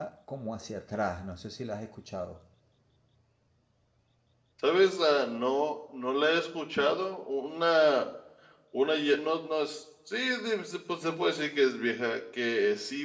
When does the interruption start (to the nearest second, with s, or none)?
none